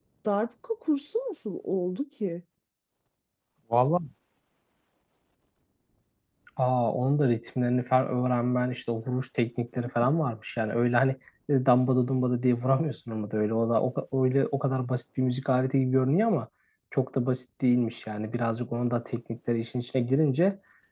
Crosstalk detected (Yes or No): No